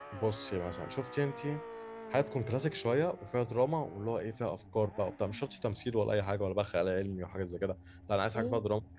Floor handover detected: No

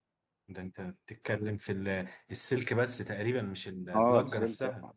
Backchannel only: No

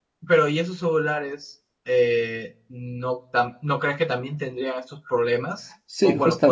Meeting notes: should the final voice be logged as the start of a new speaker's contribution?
Yes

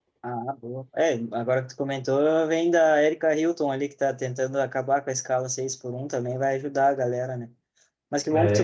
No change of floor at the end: Yes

